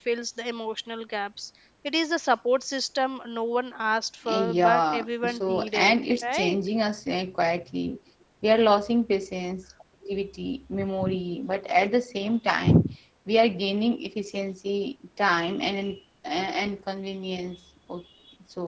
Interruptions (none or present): present